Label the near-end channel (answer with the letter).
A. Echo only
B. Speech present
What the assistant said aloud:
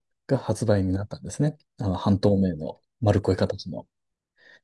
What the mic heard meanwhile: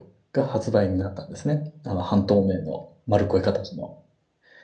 A